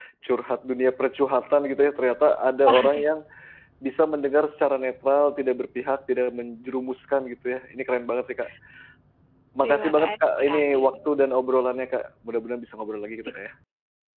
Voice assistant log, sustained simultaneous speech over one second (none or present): present